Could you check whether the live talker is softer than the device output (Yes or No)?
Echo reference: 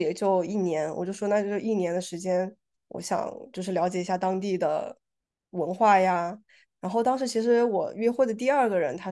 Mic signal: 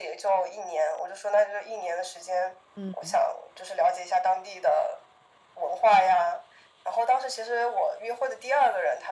Yes